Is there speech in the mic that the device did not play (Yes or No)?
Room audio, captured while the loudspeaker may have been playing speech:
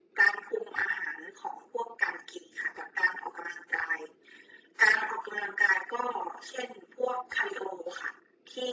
No